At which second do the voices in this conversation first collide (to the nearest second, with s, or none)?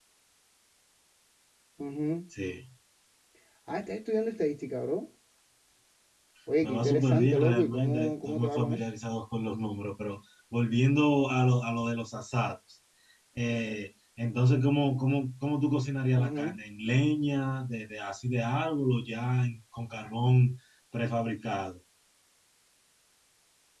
7 s